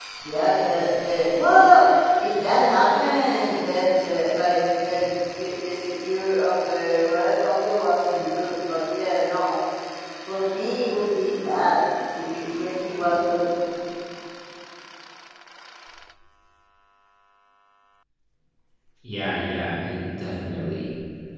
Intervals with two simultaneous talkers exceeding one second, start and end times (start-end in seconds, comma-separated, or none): none